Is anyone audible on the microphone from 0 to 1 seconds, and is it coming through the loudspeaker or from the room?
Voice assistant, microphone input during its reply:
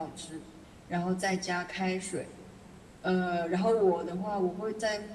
echo only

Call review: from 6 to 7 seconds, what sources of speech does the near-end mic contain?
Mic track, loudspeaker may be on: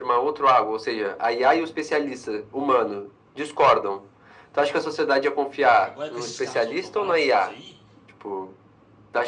both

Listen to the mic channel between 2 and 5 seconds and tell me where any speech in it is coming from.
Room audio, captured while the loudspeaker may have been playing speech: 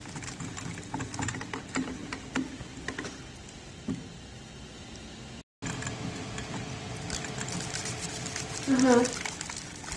neither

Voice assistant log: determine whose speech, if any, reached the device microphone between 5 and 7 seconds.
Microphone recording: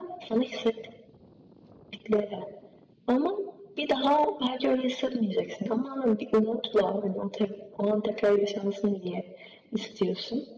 echo only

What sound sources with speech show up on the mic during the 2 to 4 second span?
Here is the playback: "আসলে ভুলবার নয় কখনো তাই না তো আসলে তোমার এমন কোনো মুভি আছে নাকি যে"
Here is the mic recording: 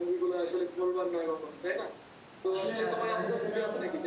both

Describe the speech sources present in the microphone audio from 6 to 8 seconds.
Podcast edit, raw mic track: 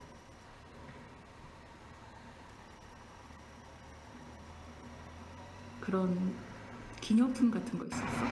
user only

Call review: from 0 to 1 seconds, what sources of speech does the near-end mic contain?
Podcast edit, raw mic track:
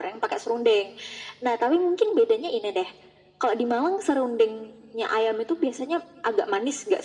echo only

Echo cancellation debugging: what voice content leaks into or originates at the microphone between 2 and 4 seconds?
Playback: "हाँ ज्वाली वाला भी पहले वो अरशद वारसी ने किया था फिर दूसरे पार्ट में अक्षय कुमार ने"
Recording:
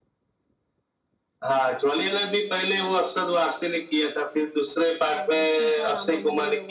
echo only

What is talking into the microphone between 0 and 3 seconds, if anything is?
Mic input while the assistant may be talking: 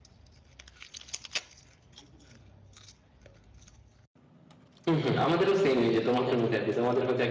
neither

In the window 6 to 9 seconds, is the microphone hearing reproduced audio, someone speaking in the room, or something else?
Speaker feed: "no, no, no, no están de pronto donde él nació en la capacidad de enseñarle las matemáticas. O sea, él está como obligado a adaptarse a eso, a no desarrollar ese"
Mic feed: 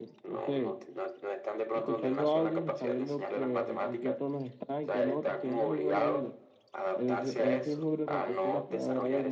both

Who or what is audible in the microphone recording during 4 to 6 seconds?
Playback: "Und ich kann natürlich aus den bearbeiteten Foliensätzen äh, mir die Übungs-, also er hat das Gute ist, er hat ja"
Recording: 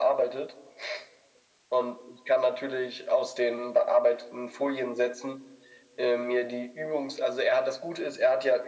echo only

